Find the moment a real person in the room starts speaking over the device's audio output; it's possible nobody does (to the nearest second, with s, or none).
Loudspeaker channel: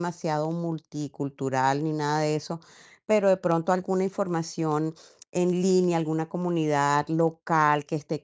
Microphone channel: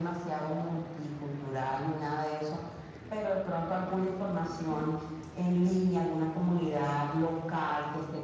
none